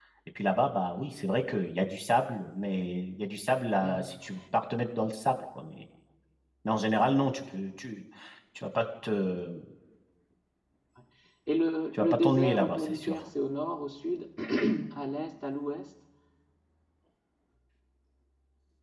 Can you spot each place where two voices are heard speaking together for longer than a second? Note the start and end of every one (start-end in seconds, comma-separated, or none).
11.9-13.1